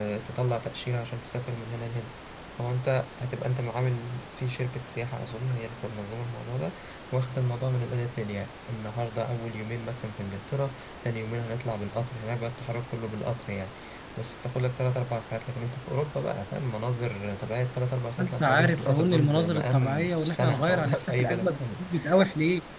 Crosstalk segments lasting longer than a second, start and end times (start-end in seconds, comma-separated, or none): 18.2-21.6